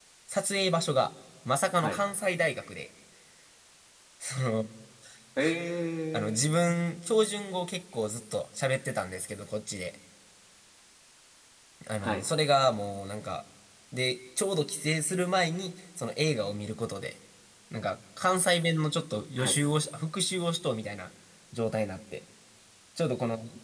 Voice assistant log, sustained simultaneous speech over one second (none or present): none